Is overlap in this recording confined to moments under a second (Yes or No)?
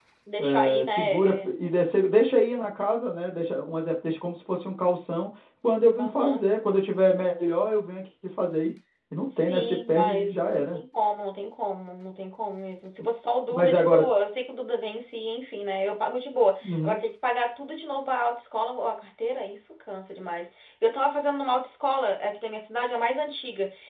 No